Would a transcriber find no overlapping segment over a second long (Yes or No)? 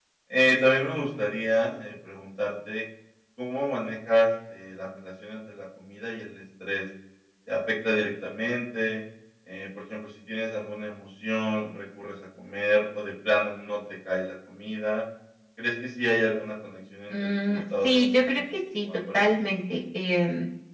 No